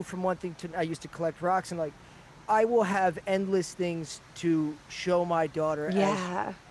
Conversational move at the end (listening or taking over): listening